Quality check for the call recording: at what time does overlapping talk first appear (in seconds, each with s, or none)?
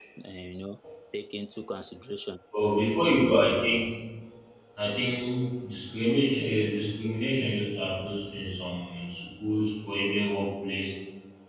none